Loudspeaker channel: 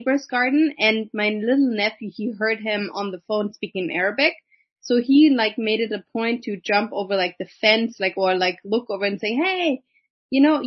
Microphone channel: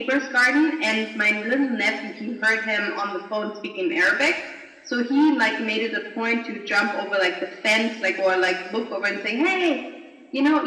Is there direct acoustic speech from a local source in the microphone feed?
No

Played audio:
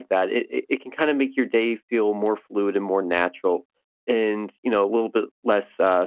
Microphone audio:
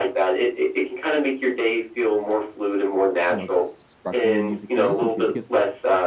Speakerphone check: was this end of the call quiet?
No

